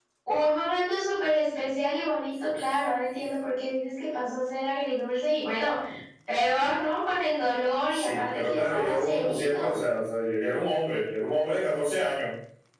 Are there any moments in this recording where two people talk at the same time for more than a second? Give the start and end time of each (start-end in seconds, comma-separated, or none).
7.9-9.8